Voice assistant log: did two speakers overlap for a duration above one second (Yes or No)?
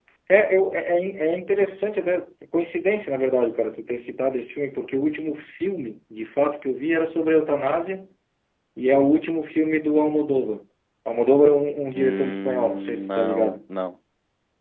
Yes